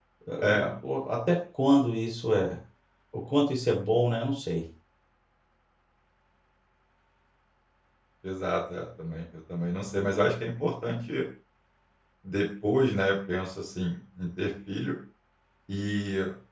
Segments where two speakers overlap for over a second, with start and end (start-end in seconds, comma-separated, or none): none